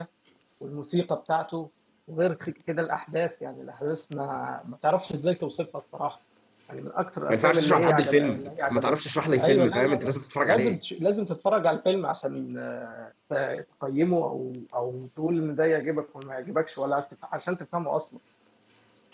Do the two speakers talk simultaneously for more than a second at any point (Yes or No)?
Yes